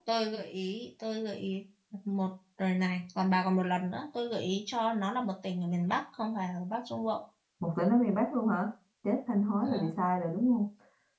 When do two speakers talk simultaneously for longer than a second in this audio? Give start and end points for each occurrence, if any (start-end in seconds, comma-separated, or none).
none